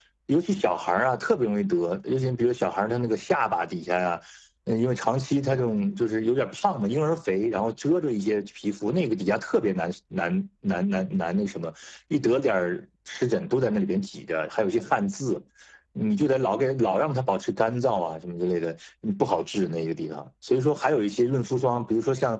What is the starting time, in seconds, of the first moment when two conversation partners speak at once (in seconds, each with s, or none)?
none